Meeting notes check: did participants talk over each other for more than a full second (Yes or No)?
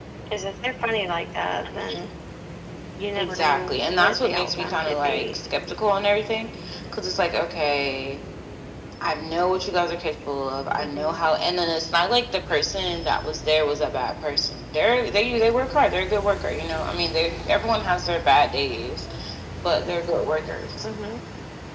Yes